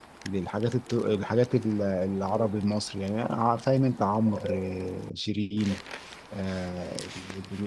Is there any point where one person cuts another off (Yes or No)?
No